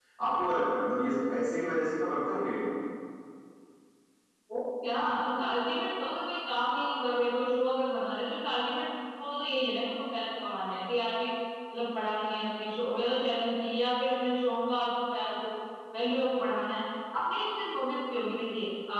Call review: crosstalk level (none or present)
none